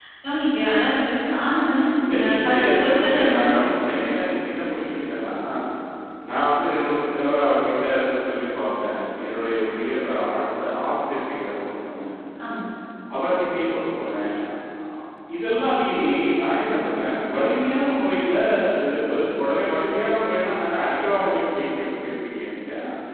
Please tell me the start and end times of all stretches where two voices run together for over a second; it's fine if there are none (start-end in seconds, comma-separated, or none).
2.1-3.5